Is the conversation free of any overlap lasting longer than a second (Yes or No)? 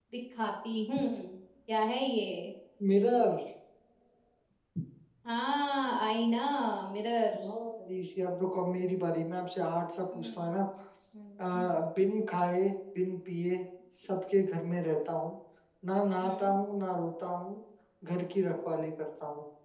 Yes